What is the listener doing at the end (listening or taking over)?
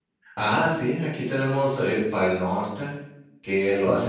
listening